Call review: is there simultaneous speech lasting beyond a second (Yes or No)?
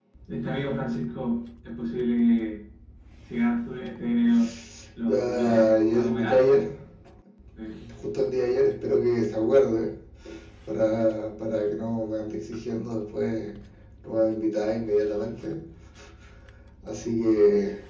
Yes